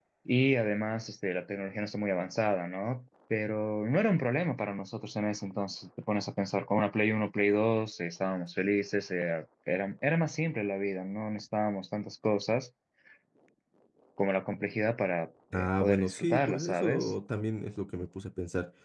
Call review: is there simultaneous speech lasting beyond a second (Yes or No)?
Yes